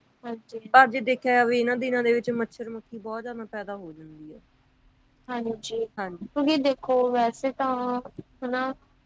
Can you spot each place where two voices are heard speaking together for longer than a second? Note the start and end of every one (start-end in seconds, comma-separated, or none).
none